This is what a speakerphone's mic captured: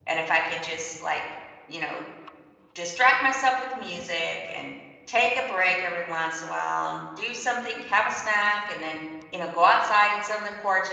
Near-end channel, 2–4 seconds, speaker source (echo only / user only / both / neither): user only